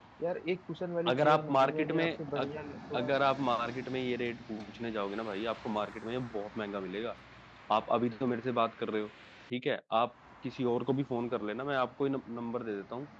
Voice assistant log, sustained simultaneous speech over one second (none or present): present